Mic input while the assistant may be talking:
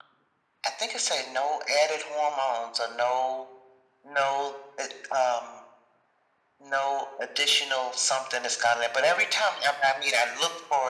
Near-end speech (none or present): none